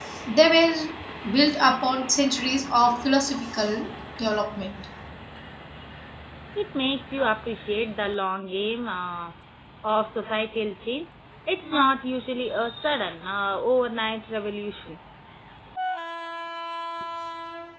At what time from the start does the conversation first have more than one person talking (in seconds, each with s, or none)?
none